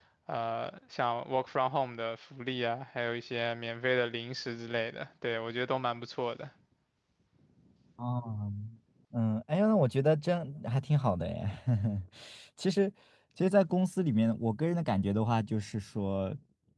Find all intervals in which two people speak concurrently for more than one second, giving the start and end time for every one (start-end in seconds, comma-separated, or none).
none